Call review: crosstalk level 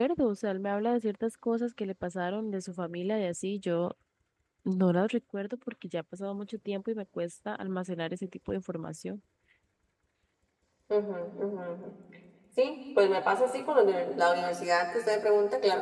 none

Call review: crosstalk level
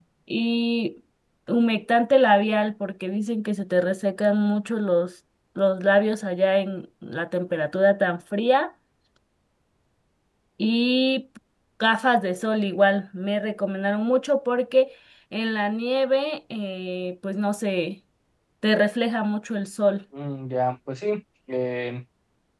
none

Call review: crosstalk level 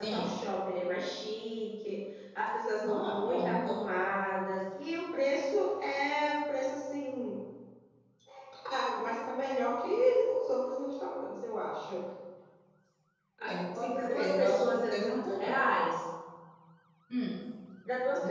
present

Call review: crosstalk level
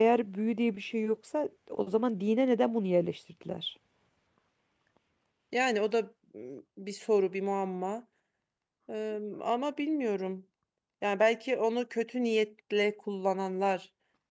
none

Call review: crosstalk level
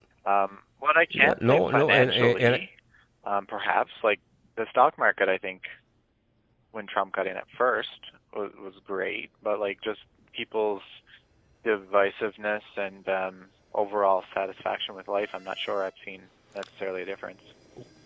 present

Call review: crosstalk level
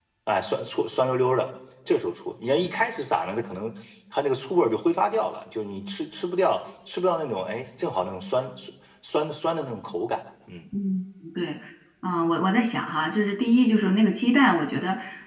none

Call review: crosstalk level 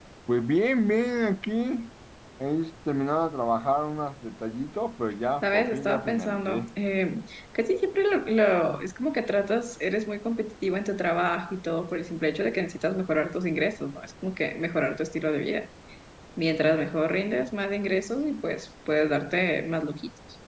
present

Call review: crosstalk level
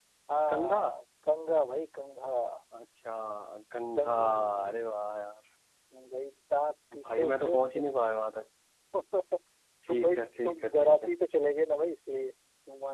present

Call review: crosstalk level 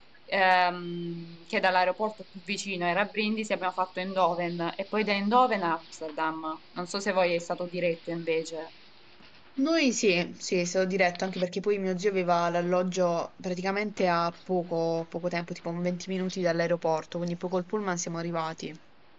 none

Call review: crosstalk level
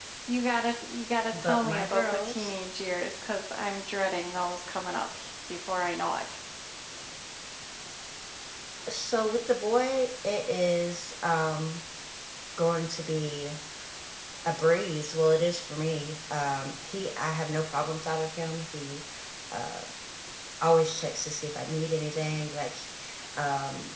present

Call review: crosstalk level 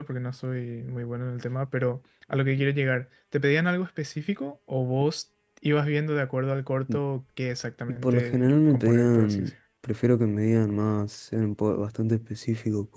present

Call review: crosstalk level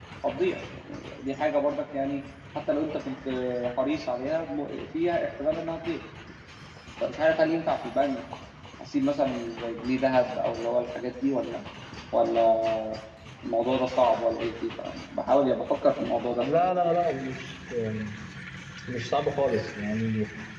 none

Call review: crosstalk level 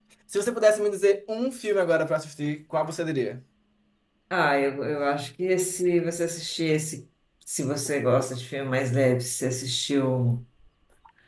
none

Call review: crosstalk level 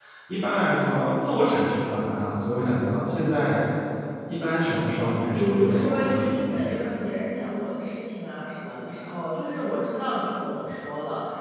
present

